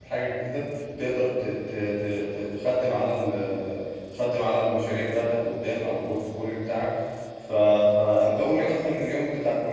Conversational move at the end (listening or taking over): listening